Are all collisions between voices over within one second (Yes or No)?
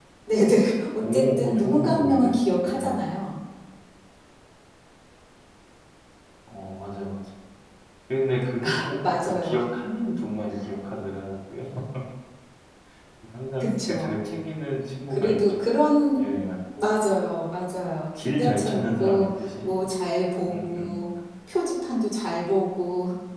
No